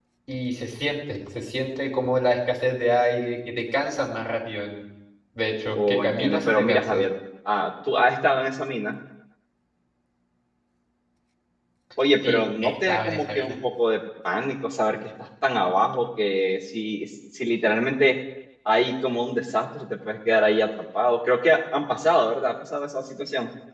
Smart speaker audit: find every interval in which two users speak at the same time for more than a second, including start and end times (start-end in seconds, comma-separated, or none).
5.7-7.0, 12.2-13.6